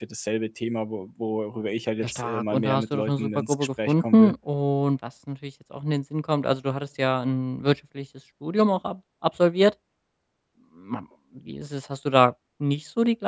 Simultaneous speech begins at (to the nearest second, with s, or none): 2 s